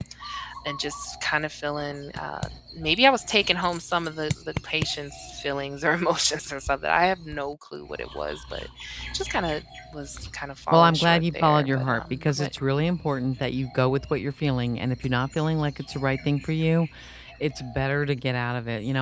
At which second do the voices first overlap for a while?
10.7 s

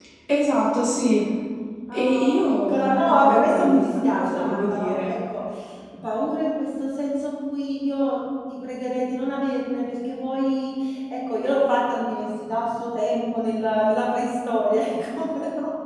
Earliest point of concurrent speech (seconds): 1.9 s

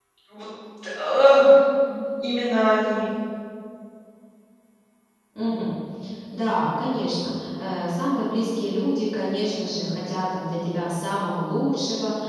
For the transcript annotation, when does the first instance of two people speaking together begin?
none

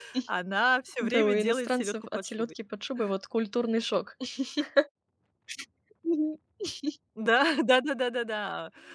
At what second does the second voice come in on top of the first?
1.0 s

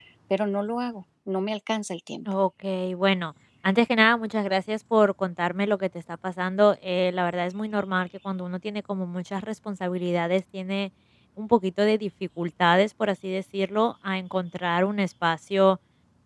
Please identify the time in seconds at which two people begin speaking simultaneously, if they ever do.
none

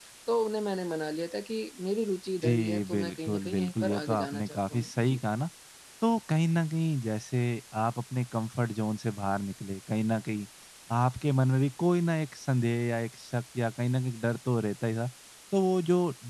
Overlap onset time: 2.4 s

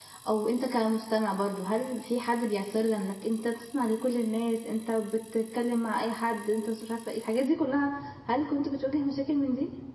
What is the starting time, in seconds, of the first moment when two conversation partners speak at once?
none

